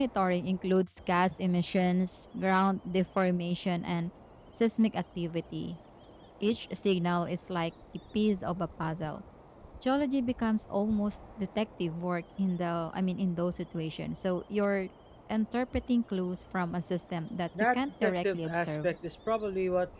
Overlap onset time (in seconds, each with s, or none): 17.5 s